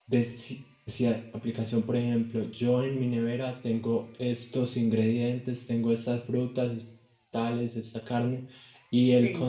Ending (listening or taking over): listening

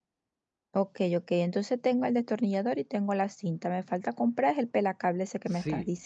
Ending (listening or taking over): taking over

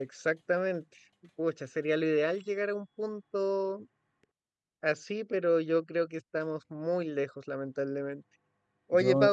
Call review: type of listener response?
listening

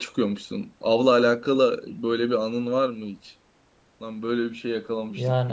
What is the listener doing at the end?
taking over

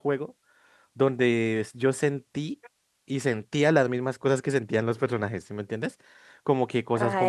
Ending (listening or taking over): listening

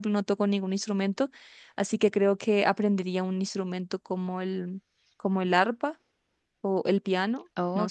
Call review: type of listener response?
taking over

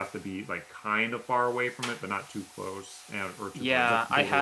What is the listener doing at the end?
taking over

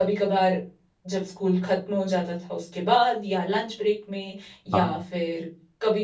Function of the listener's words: listening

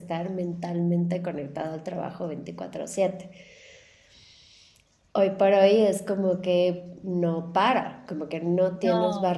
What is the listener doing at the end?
listening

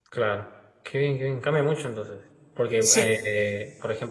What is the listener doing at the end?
listening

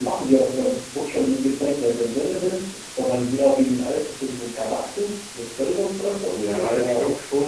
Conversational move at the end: taking over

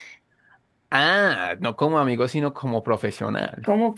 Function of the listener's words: taking over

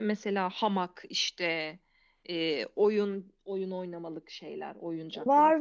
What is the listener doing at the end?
taking over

